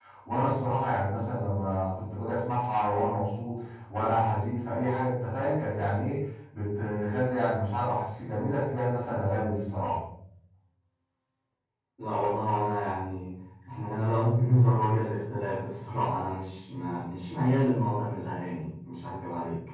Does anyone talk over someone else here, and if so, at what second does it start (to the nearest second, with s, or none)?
none